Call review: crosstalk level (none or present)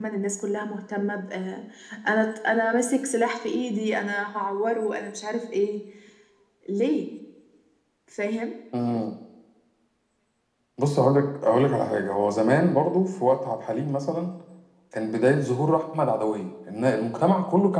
none